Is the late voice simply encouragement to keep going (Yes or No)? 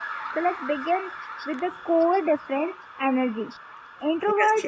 Yes